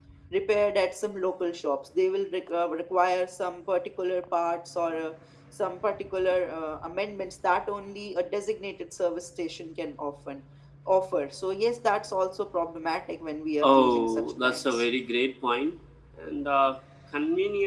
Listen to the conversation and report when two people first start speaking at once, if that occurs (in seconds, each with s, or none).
13.6 s